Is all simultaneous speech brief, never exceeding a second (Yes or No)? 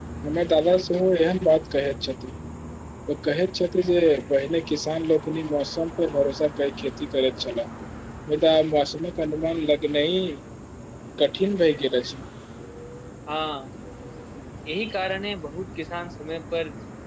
Yes